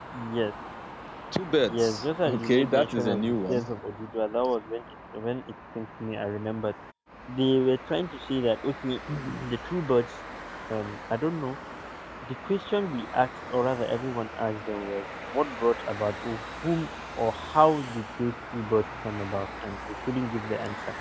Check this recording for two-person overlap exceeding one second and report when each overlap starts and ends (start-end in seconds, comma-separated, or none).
1.7-3.6